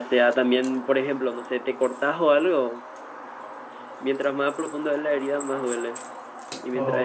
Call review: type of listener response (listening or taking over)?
listening